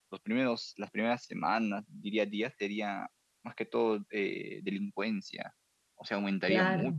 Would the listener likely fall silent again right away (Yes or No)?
Yes